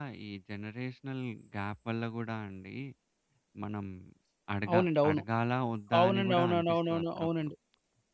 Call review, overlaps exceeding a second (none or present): present